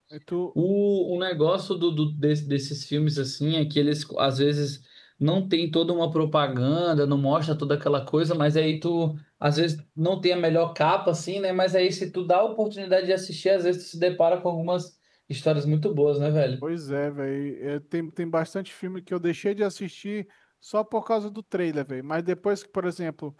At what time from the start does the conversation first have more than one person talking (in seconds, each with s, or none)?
none